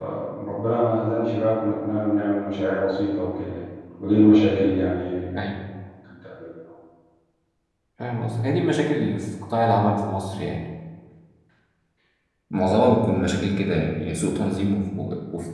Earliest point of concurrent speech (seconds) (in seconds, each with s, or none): none